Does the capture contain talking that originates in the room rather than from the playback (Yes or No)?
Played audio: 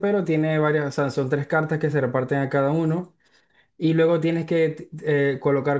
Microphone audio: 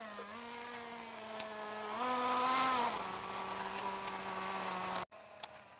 No